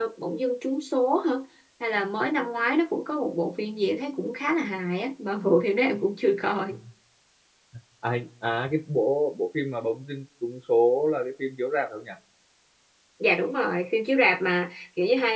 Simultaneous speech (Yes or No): No